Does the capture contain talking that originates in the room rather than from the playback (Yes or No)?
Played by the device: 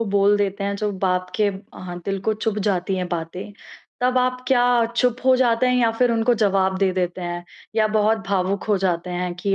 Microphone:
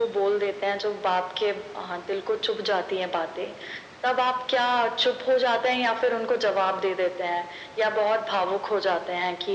No